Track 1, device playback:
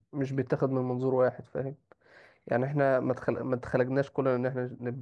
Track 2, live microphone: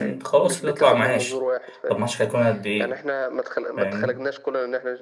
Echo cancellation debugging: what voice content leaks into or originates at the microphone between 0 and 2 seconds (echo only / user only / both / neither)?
both